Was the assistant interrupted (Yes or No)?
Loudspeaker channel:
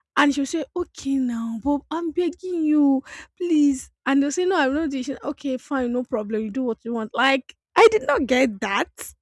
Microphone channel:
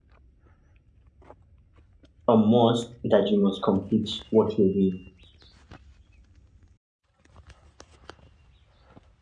Yes